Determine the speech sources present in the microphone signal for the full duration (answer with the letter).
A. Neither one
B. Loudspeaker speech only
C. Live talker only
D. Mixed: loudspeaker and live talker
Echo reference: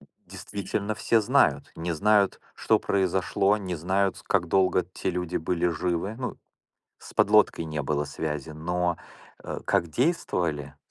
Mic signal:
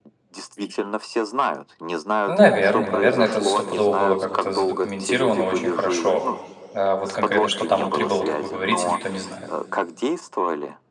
D